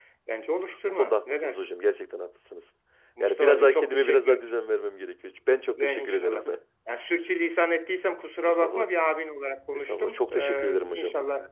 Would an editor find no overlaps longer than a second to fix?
No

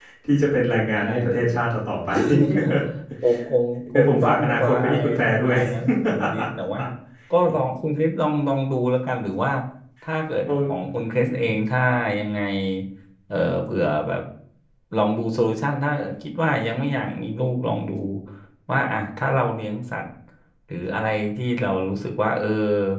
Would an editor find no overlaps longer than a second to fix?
No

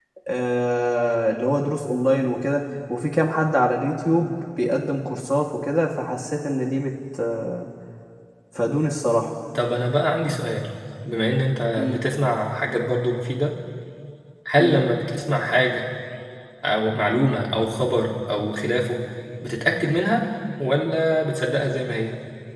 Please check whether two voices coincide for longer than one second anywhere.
No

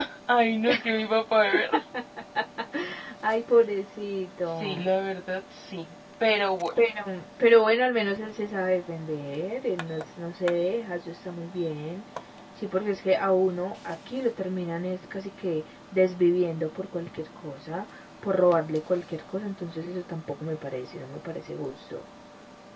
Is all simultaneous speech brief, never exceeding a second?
Yes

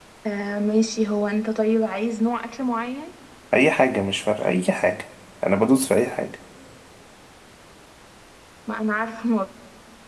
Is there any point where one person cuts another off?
No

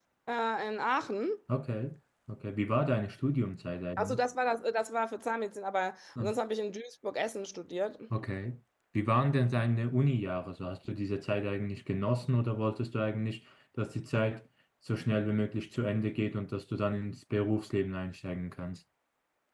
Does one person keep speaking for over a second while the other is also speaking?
No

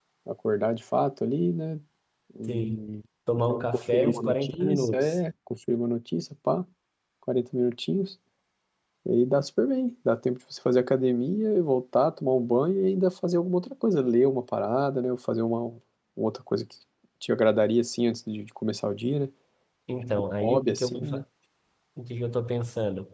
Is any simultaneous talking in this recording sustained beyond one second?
Yes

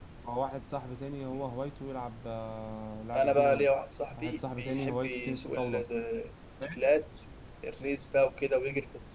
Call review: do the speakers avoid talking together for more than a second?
No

